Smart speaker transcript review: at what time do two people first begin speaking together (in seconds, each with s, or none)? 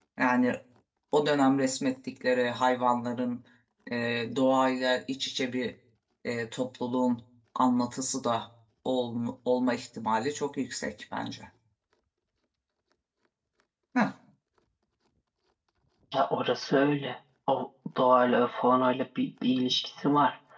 none